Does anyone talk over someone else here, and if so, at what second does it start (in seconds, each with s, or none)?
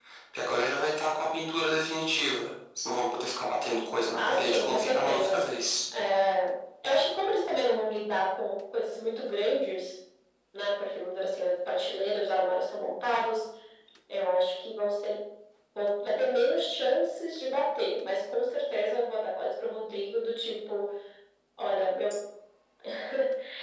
4.2 s